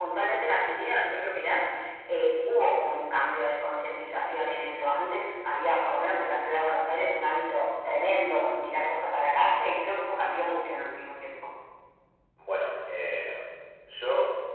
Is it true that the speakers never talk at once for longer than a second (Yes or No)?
Yes